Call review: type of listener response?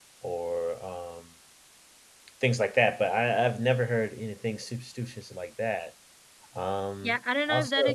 taking over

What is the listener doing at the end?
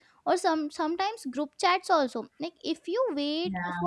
listening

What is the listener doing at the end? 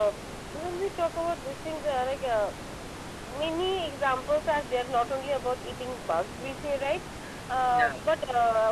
listening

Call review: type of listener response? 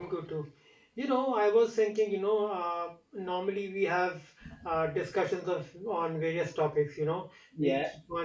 listening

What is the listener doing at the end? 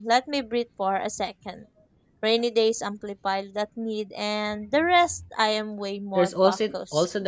taking over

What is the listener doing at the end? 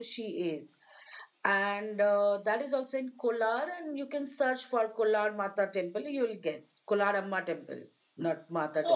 taking over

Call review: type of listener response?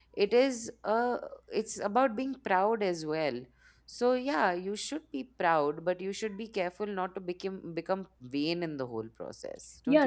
taking over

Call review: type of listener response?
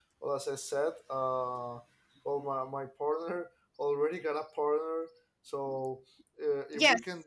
listening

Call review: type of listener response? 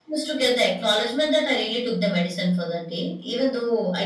listening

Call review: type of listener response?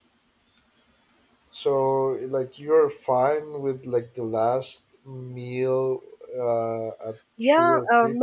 taking over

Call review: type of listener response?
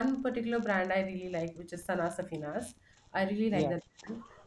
listening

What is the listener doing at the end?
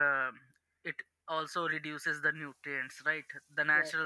taking over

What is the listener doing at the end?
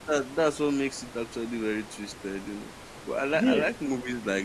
listening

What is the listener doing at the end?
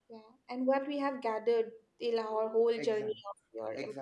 taking over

